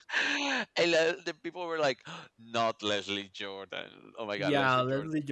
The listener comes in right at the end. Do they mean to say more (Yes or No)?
Yes